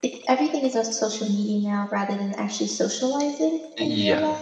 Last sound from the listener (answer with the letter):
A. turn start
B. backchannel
A